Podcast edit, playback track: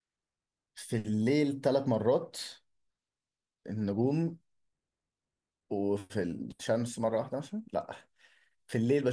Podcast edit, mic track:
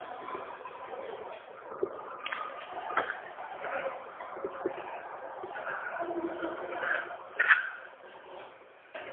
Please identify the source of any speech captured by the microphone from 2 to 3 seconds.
neither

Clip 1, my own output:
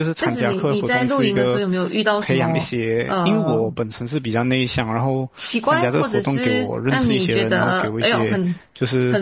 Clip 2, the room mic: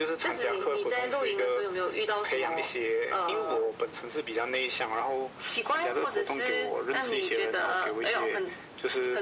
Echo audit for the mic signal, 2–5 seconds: echo only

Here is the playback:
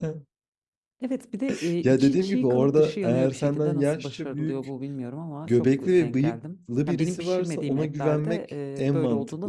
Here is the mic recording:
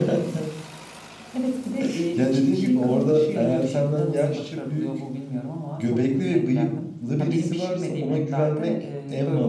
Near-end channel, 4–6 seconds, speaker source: echo only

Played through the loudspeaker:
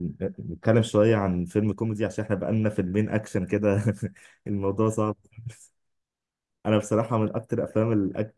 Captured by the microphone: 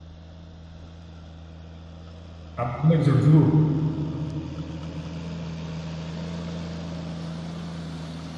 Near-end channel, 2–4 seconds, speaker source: user only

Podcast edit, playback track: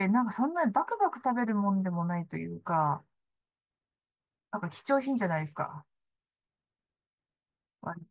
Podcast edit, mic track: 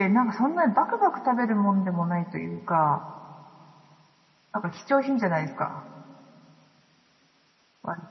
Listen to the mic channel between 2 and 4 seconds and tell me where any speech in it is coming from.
echo only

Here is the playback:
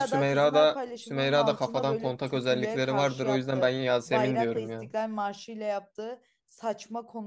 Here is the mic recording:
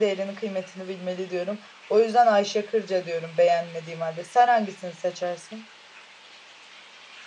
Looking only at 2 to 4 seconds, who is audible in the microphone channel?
user only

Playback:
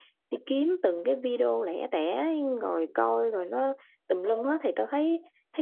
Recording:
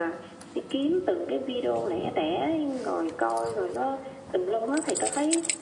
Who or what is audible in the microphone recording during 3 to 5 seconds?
echo only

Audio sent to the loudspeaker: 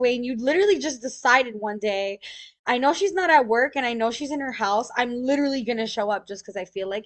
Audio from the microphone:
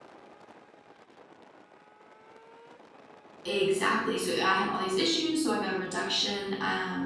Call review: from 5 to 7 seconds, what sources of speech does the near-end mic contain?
user only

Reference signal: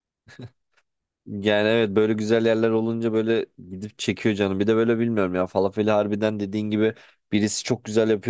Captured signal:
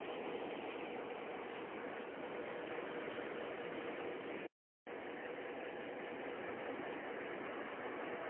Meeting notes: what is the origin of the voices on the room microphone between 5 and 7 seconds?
neither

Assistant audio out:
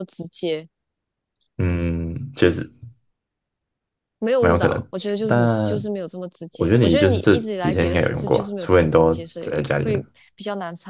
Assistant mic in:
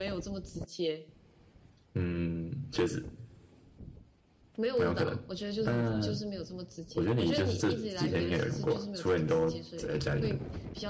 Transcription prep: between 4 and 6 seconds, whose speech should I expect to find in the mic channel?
echo only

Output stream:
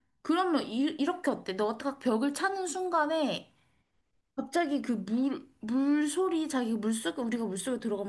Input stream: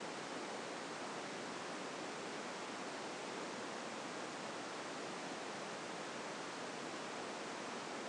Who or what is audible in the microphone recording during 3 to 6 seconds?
neither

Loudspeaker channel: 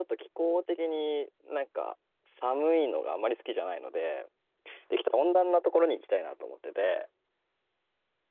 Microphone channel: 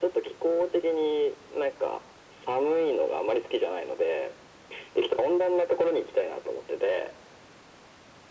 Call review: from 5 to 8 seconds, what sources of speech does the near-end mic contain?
echo only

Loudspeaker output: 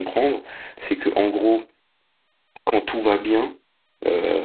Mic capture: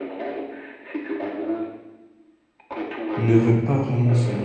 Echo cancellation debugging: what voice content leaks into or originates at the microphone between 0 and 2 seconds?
echo only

